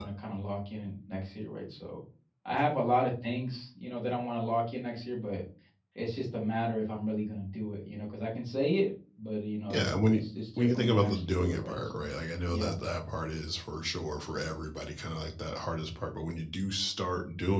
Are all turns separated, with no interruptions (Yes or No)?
No